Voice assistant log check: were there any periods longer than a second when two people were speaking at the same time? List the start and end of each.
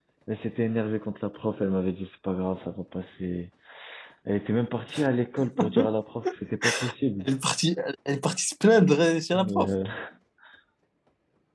none

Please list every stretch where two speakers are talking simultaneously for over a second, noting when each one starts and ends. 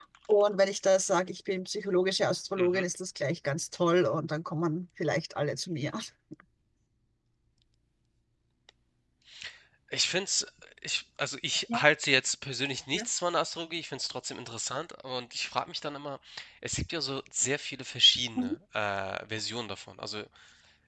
none

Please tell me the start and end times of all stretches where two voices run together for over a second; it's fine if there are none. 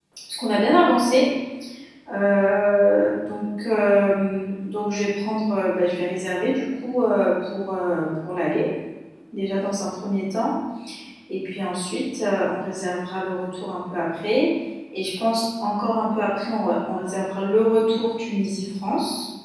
none

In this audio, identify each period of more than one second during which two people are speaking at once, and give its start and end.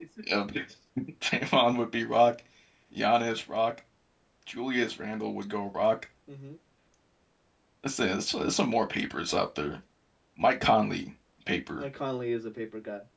none

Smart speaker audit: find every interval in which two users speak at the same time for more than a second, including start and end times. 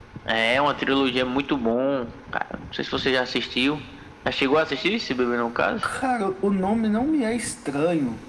none

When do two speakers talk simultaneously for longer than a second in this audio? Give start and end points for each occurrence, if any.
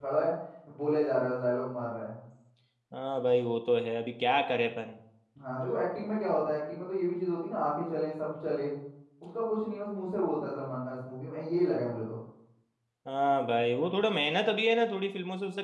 none

